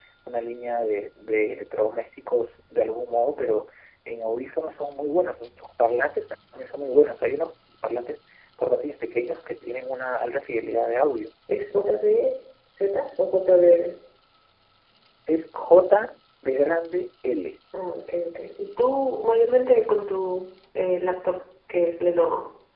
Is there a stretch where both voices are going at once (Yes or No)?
No